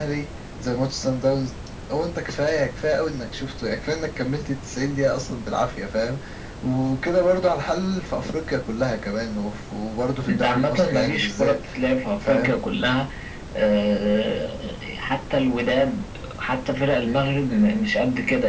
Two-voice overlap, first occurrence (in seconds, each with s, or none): 10.3 s